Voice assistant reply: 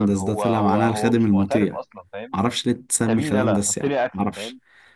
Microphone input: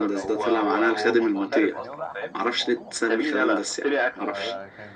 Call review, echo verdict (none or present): present